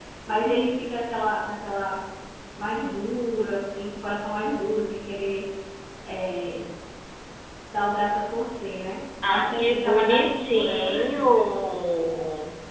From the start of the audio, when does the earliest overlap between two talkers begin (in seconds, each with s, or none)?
9.2 s